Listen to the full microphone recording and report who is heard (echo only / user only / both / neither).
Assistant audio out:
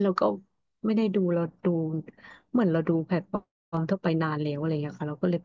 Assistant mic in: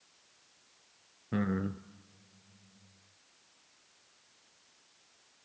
user only